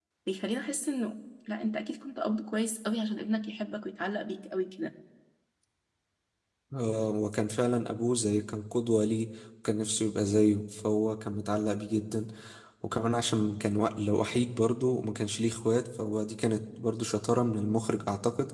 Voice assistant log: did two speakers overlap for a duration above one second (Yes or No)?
No